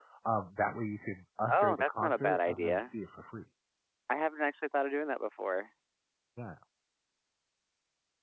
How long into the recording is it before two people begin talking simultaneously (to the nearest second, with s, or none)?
1 s